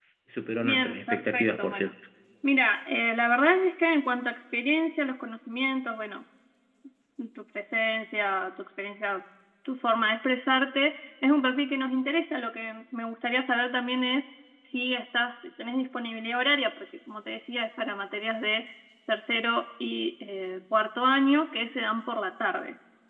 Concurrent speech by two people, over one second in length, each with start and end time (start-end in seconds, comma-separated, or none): 0.6-1.9